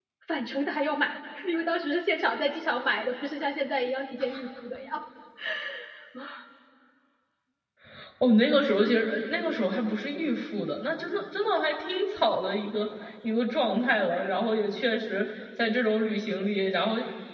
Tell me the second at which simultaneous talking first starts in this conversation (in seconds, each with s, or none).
none